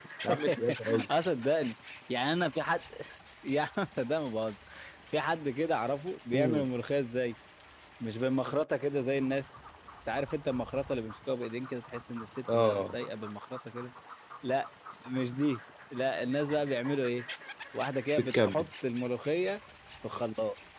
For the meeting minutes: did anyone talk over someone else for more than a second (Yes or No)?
No